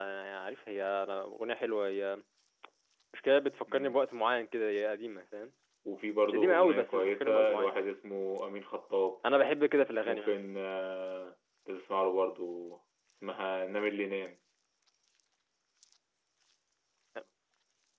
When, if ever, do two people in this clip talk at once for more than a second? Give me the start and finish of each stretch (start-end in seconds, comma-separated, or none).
6.3-7.9